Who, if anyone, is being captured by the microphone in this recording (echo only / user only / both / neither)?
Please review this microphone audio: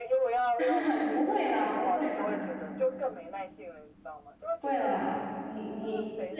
both